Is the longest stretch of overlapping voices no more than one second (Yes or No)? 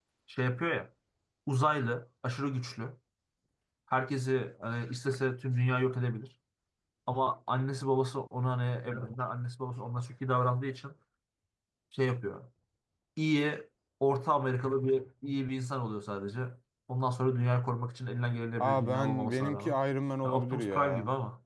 No